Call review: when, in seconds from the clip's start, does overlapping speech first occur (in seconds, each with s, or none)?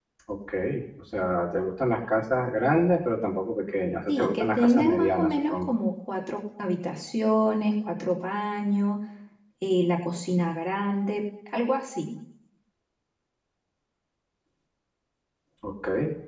4.1 s